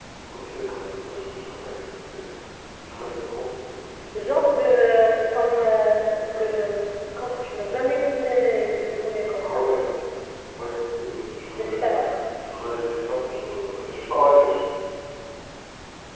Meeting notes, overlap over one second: none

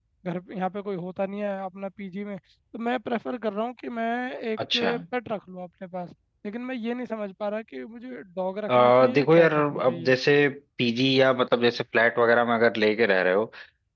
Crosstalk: present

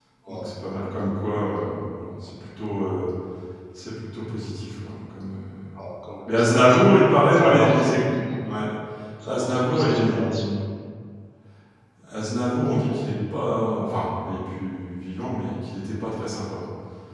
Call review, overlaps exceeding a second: present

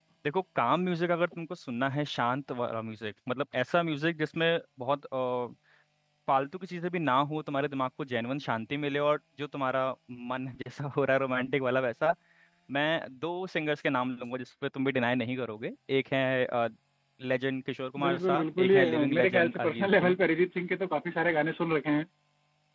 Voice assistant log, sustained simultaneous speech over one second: present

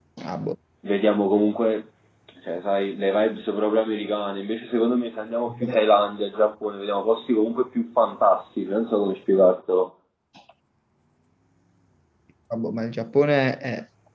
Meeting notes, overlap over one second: none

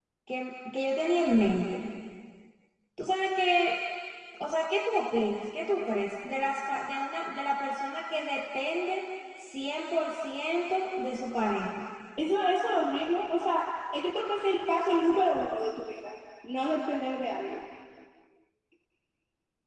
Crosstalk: none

